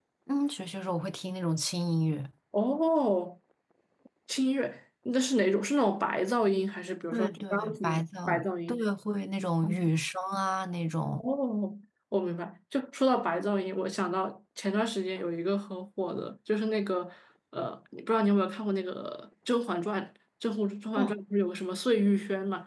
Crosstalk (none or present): present